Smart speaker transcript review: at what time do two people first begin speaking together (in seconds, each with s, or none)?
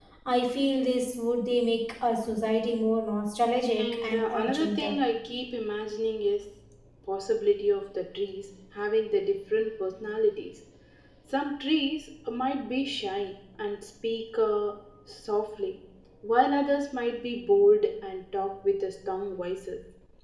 3.8 s